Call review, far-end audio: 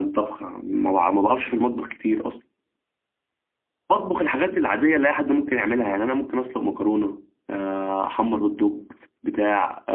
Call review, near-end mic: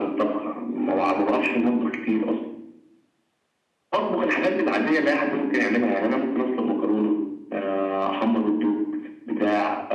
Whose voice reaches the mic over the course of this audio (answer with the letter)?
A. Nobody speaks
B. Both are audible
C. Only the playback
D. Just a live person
C